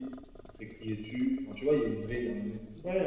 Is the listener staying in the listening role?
No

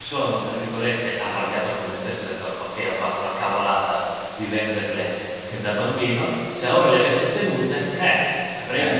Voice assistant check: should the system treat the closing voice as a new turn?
Yes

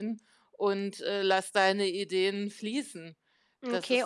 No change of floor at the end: No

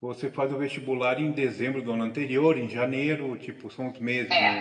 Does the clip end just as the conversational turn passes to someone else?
Yes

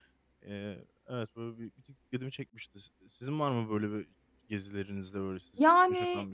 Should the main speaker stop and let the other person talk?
Yes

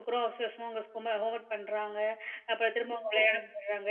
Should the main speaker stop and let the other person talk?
No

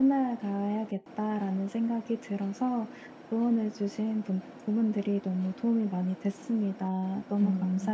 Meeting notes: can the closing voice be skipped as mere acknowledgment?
No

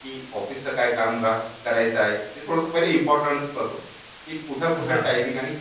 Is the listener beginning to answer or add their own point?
No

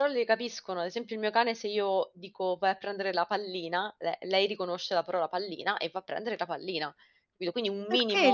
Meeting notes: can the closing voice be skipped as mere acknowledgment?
No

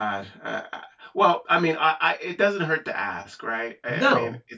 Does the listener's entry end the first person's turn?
Yes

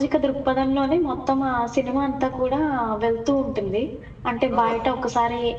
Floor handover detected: No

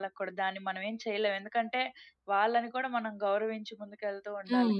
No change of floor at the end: No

